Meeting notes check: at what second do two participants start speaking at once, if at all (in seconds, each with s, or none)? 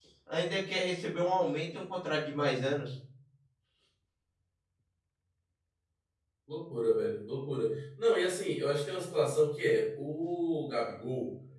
none